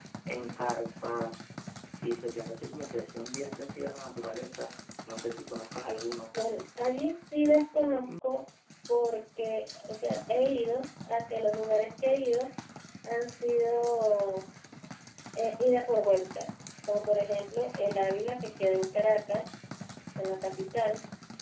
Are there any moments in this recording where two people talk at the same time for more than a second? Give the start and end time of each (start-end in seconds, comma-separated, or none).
none